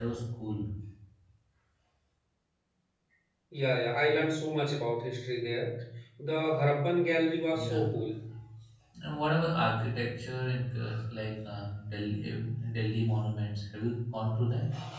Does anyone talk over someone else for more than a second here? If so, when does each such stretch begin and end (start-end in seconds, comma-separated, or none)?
none